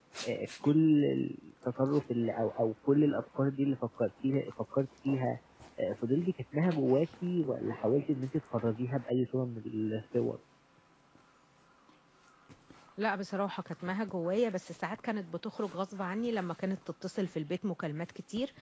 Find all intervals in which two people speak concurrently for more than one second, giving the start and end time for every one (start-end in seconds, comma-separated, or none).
none